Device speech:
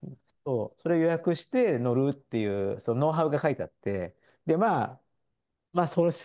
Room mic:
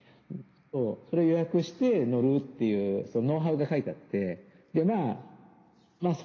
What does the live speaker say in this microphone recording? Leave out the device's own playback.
none

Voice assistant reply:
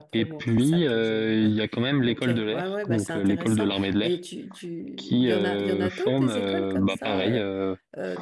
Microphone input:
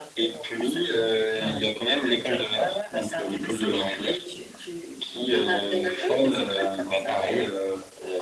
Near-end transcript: Ah ouais.

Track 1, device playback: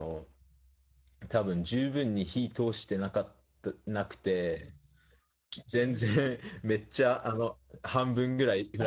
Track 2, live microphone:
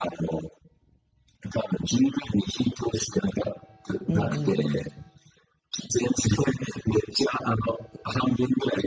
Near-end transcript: うんうんうん。

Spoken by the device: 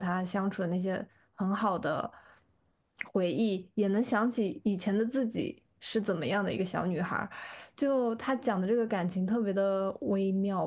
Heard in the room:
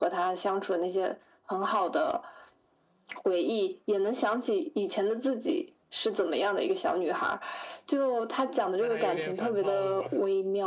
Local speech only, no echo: 那还有点反套路啊，

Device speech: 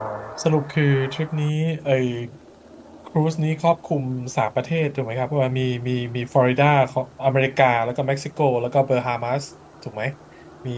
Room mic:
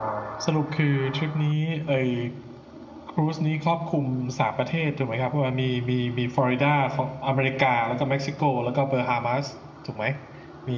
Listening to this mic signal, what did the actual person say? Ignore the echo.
none

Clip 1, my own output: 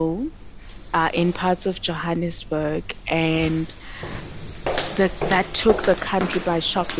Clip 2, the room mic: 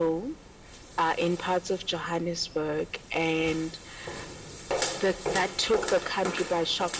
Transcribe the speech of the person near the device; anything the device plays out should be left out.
none

